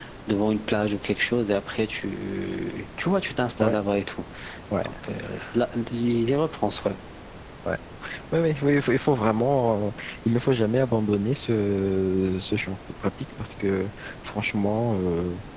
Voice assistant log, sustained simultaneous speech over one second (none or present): none